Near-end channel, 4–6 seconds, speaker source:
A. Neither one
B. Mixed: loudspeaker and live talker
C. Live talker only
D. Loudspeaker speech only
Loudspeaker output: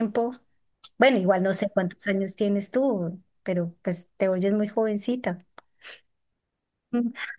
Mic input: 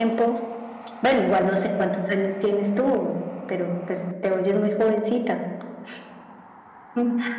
D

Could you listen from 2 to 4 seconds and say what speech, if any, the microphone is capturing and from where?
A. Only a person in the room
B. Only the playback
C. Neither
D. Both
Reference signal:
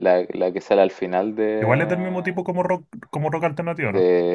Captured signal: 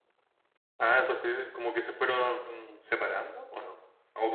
A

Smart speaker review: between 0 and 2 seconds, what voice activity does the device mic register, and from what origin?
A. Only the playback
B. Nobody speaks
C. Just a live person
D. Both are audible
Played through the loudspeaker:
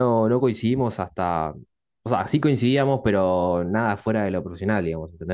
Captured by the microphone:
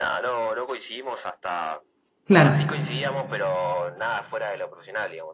A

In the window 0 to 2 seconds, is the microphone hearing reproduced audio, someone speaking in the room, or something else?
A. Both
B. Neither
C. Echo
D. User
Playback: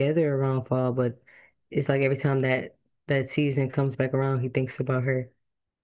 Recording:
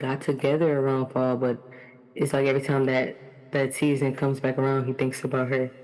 C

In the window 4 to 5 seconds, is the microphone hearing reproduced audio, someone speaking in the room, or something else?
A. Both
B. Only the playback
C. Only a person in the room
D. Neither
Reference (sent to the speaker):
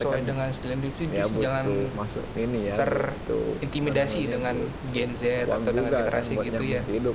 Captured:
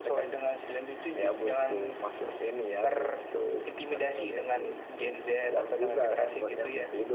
B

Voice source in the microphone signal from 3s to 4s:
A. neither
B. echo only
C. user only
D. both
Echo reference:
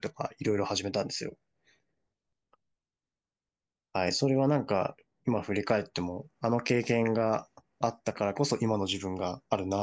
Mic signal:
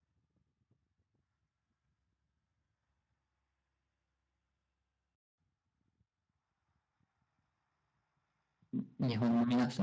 A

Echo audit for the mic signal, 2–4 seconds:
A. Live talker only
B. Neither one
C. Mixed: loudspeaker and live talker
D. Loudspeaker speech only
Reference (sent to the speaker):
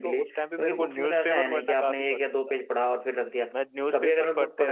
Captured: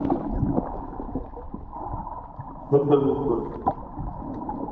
A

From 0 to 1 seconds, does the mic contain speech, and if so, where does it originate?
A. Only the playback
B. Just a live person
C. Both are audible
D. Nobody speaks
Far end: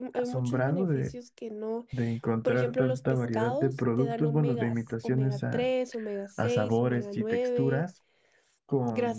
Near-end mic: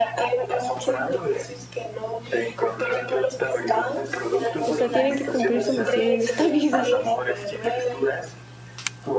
A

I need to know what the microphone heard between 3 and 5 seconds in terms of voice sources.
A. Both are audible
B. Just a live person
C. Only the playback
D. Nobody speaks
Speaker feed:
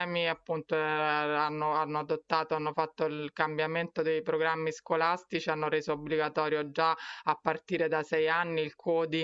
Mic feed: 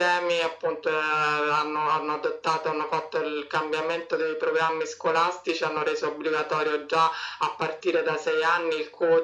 C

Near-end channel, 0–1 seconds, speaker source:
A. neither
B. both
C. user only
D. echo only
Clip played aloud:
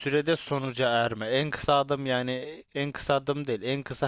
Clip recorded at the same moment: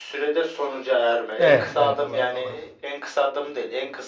D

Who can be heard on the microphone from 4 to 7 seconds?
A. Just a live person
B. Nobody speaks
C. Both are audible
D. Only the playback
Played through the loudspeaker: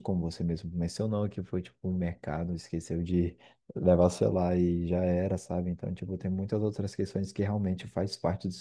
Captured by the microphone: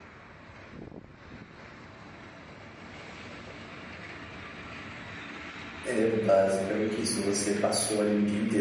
A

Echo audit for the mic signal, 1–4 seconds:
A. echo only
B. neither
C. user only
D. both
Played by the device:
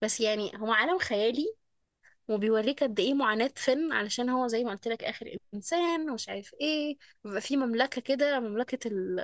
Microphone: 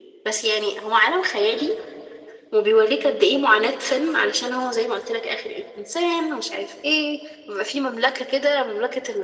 A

